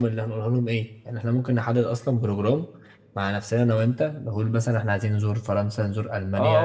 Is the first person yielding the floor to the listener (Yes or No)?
Yes